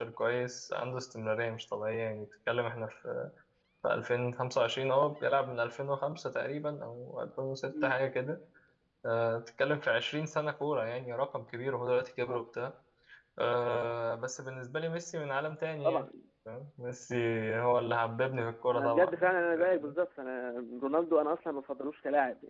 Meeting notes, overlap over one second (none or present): present